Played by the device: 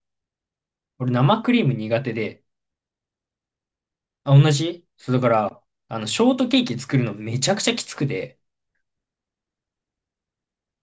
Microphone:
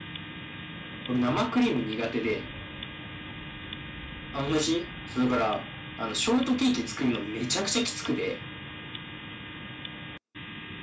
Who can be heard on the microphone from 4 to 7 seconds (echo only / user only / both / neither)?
echo only